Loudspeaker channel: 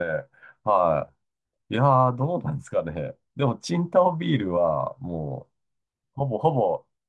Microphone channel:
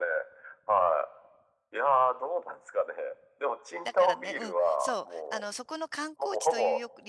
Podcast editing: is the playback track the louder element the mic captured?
Yes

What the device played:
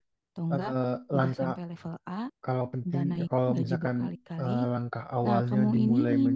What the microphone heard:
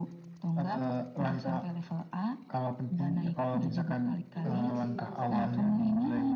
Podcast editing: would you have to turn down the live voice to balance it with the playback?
No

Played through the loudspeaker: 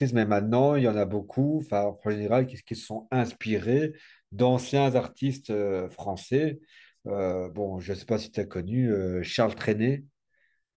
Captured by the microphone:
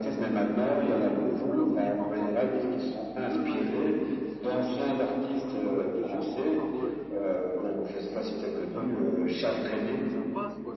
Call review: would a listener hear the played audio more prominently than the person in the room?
Yes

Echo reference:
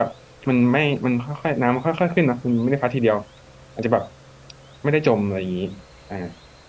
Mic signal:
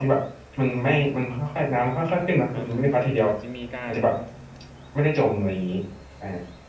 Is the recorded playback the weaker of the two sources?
No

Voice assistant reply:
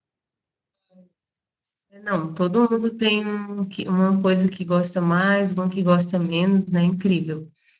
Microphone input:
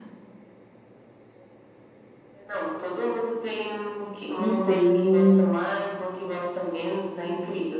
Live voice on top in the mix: Yes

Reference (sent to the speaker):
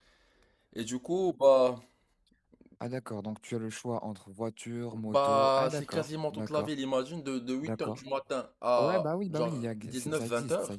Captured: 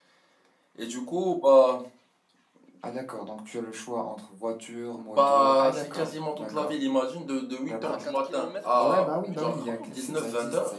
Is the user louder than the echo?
No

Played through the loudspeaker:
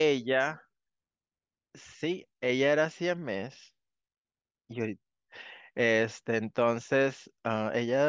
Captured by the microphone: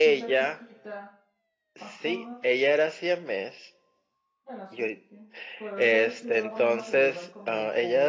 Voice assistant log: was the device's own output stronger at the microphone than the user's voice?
Yes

